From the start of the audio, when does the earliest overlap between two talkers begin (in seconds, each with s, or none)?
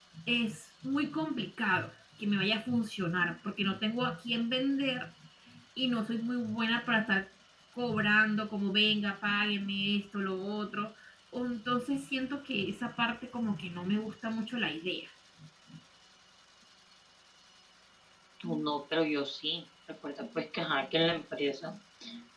none